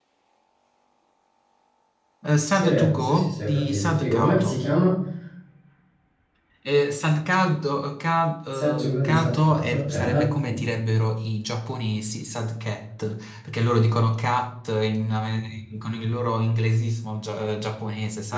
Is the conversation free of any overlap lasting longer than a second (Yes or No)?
No